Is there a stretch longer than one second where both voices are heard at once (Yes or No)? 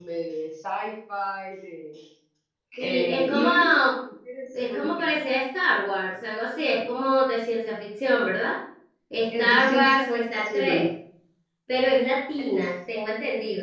Yes